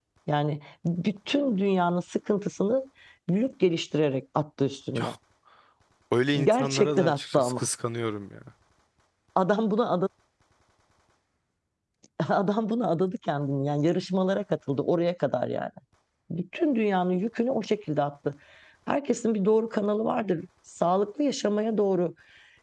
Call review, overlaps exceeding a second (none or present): present